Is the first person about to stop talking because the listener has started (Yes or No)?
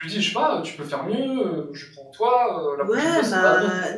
Yes